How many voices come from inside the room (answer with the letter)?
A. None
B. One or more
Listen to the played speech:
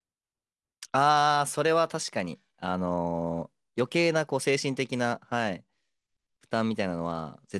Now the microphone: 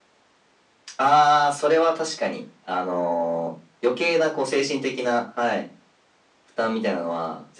A